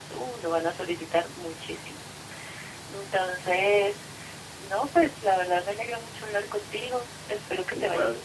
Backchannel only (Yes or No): Yes